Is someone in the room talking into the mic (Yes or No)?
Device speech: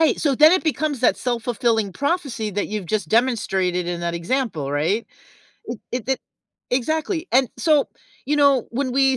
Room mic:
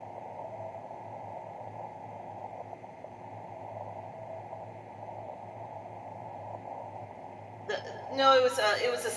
Yes